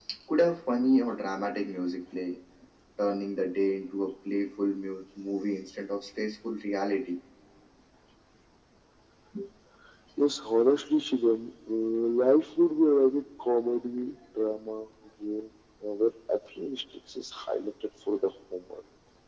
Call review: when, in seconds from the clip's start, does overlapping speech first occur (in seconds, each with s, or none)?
none